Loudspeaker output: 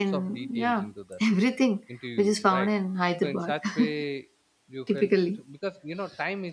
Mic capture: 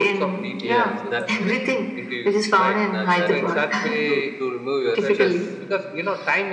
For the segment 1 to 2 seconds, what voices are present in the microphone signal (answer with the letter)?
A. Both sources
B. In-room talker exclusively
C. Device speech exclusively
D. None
A